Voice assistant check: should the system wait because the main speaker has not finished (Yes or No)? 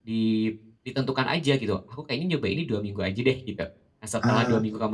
Yes